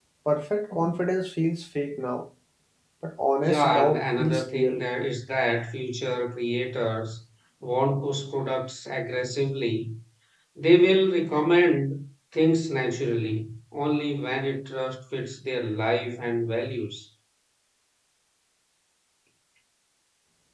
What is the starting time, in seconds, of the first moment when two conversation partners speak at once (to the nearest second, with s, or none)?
3 s